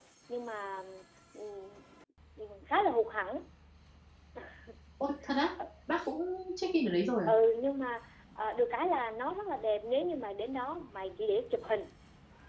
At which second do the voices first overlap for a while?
none

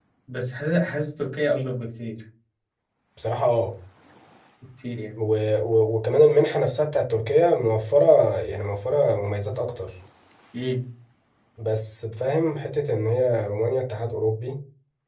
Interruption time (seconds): none

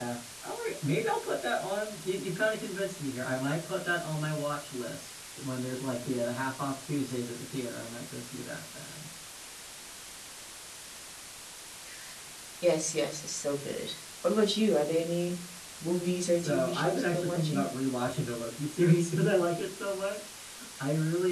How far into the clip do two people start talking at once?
16 s

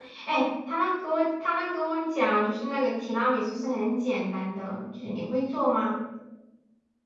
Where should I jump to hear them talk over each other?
none

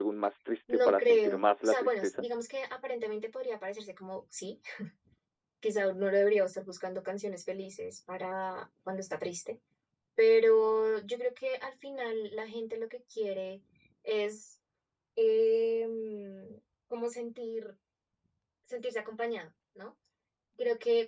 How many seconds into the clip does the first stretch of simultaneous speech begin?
1 s

